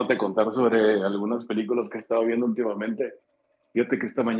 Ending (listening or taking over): listening